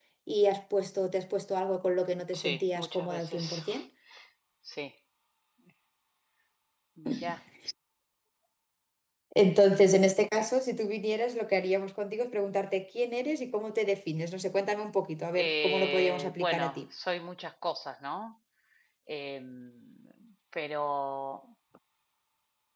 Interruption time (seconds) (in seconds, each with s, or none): 2.3 s